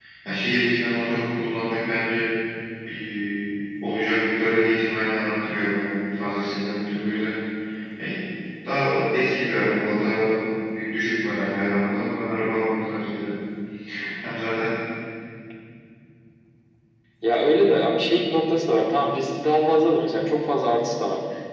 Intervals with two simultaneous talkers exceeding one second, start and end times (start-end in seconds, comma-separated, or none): none